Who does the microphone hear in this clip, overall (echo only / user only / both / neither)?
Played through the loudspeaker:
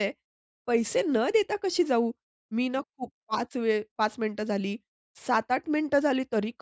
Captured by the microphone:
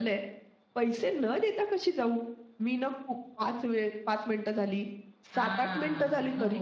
both